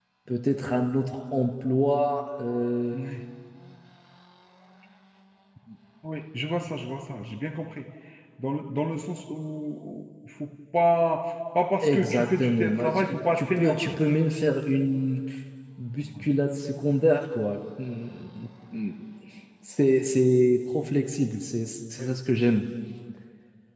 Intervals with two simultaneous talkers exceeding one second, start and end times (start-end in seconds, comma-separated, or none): 11.8-14.0